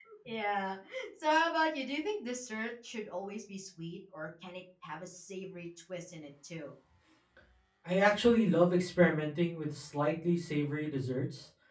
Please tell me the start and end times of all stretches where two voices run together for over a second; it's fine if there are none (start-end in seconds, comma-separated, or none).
none